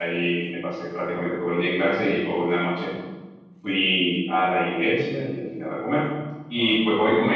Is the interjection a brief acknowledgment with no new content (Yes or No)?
Yes